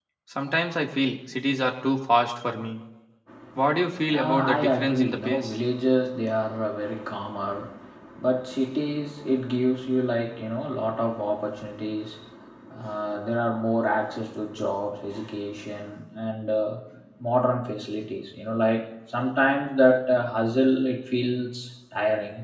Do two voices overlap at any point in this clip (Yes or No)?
Yes